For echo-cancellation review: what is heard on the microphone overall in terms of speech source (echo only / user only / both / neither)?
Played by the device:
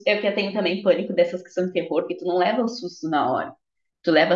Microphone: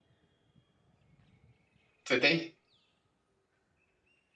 user only